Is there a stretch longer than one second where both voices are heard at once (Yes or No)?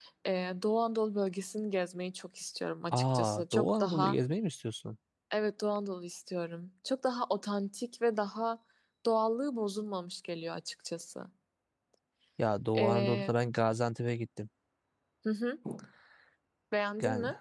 Yes